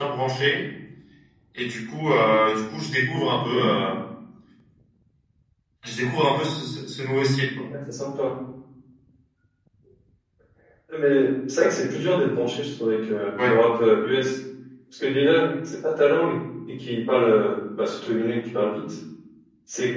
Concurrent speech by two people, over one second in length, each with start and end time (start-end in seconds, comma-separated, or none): none